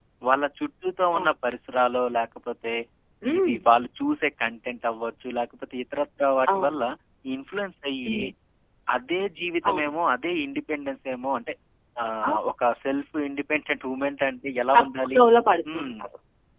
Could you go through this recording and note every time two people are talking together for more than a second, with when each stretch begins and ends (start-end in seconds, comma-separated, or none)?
none